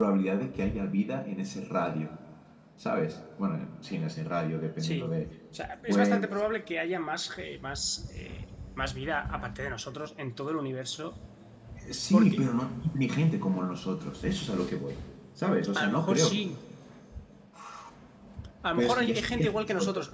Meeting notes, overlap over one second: present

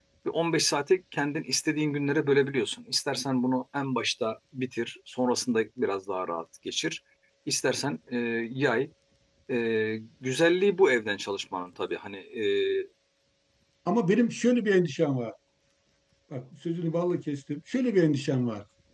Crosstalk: none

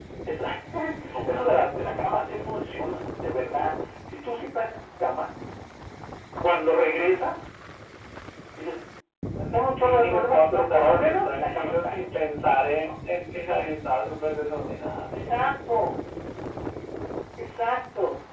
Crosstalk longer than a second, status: present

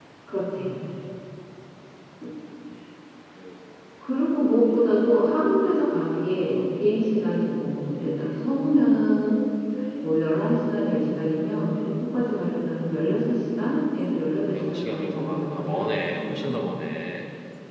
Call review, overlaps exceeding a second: present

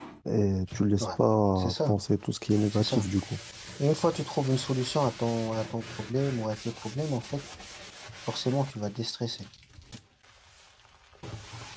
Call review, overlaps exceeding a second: none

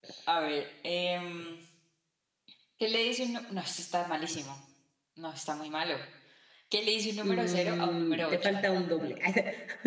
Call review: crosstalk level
present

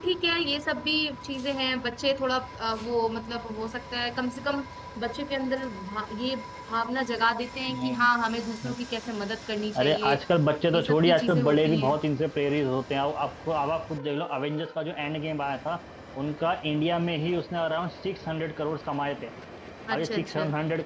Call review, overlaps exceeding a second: present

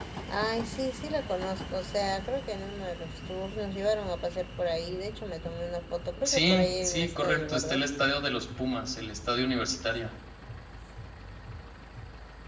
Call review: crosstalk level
present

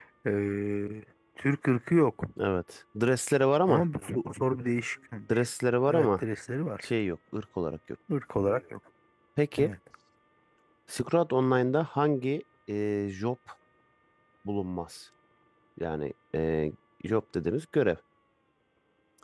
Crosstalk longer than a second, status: none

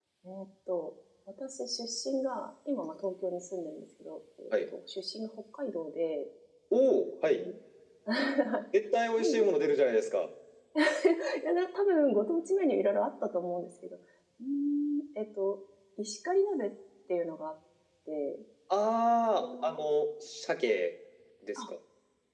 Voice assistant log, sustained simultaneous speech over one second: none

